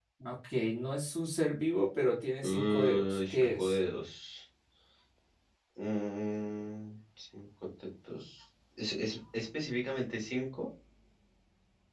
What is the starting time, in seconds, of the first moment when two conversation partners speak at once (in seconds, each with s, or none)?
2.4 s